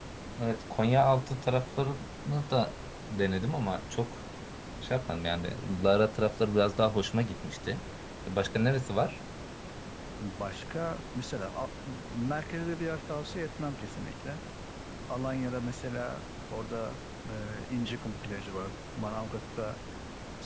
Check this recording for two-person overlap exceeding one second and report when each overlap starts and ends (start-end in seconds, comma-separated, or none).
none